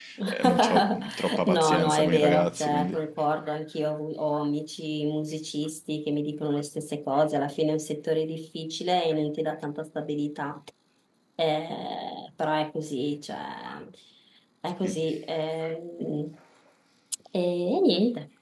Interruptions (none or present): present